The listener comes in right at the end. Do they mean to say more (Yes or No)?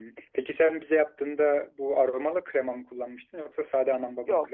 Yes